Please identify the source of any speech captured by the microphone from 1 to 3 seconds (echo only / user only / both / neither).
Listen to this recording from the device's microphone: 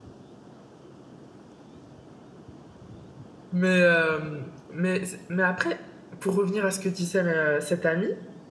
neither